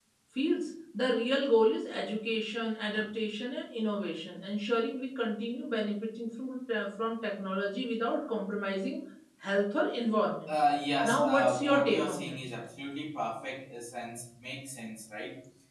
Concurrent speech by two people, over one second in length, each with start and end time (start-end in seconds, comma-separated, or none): 11.0-12.4